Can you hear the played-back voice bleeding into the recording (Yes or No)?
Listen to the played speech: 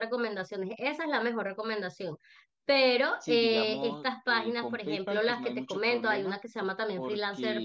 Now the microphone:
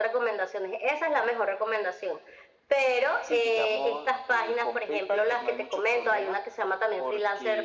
Yes